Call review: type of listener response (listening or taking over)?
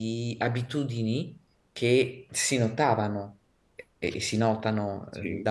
listening